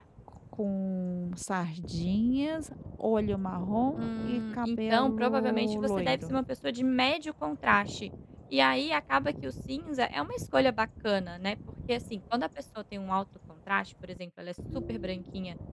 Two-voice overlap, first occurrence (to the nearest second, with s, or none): 4 s